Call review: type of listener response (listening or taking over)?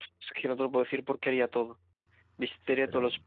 listening